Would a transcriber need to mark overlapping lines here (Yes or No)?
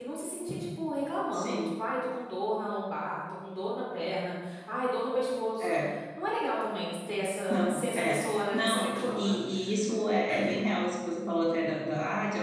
Yes